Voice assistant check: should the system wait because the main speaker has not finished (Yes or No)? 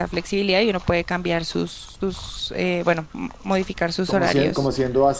No